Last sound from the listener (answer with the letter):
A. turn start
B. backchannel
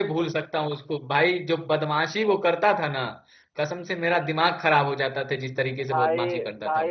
A